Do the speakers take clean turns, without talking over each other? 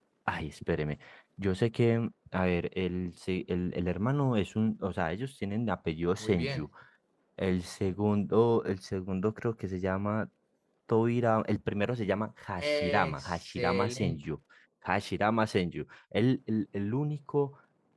No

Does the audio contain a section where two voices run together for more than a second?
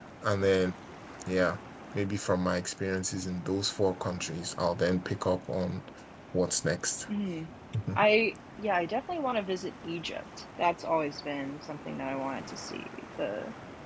No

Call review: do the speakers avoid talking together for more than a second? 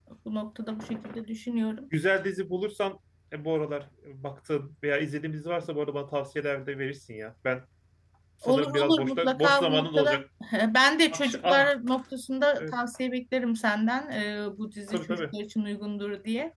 No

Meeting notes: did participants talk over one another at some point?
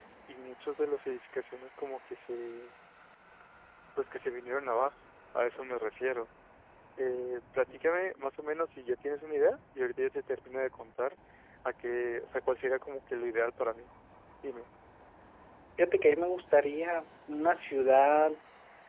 No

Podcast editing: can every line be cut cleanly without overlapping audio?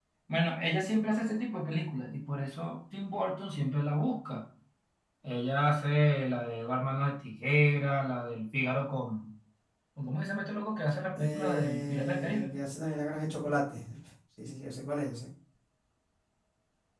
No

